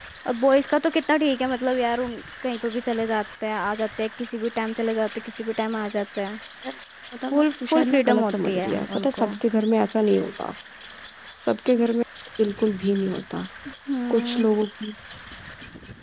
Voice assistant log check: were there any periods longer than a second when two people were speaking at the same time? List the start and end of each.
7.3-9.3

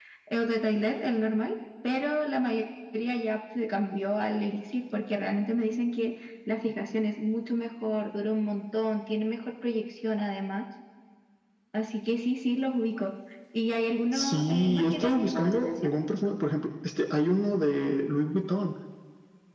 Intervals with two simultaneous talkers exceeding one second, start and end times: 14.1-15.9

